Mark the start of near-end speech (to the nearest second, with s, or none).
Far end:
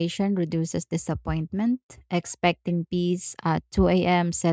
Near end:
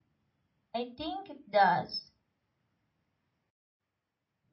1 s